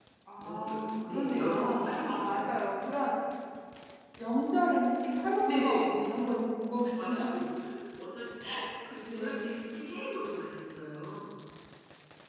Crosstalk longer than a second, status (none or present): present